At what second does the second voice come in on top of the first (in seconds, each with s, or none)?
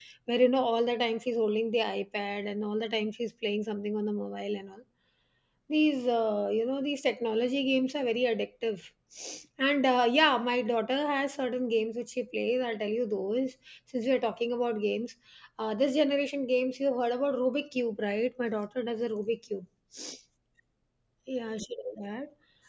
none